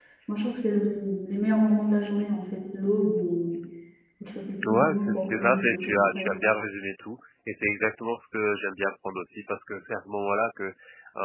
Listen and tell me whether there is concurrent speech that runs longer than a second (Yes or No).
Yes